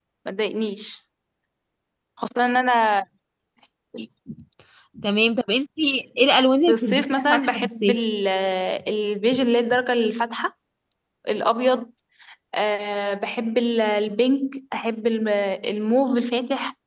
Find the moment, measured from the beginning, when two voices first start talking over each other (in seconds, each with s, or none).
6.7 s